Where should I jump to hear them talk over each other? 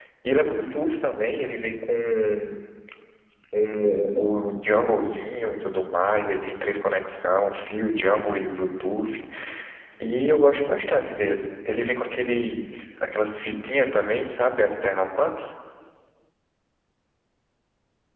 none

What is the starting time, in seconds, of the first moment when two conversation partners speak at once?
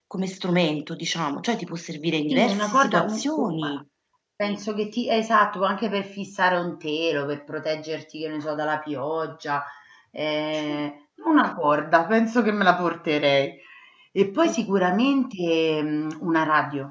2.3 s

